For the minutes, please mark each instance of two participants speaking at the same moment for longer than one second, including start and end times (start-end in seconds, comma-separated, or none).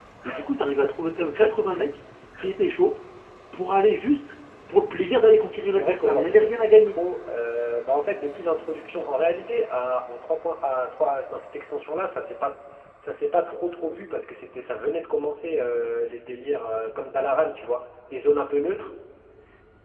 5.7-7.0